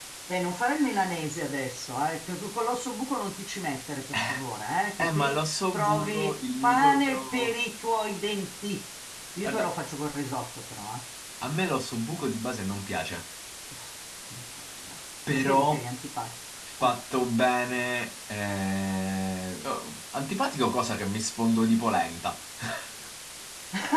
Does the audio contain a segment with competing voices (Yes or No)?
Yes